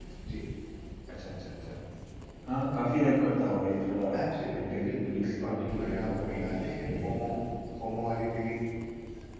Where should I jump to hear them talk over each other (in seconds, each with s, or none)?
4.5 s